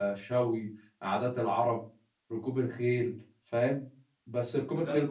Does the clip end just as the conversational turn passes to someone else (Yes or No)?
Yes